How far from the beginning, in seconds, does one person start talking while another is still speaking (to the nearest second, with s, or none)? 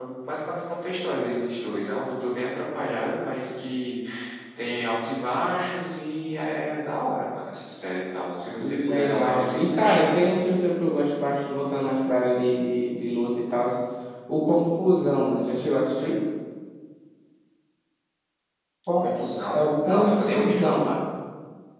9 s